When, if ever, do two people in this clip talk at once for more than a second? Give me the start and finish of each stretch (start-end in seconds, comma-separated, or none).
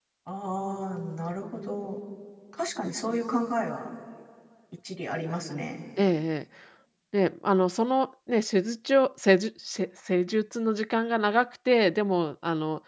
none